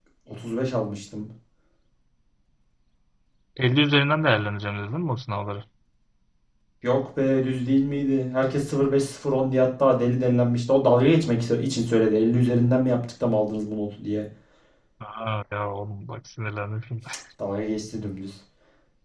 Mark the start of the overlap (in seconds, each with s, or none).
none